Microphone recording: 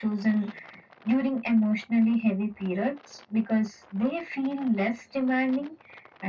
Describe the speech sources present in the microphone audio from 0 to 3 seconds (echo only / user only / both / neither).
echo only